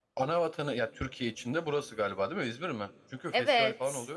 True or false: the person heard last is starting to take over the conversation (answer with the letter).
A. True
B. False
A